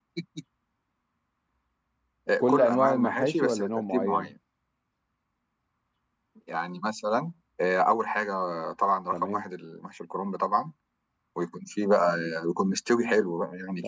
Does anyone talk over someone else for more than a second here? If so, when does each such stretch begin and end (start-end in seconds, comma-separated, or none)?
2.4-4.3